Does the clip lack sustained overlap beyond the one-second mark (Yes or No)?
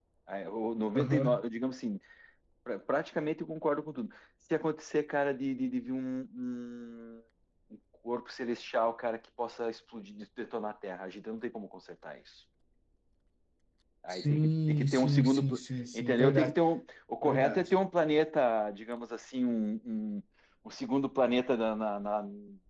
No